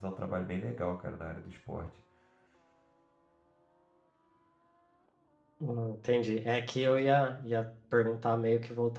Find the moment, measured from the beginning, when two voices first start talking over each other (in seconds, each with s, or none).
none